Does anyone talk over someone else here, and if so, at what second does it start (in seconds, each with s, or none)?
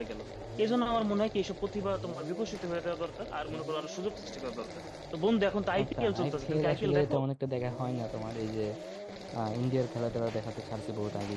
5.8 s